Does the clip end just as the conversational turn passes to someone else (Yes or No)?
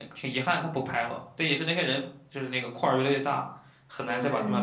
Yes